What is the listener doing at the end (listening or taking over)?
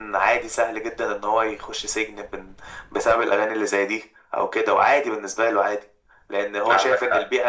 listening